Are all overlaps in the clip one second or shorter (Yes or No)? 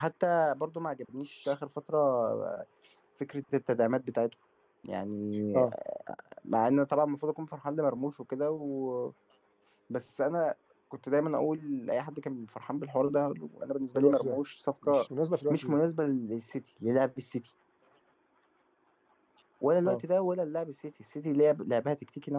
Yes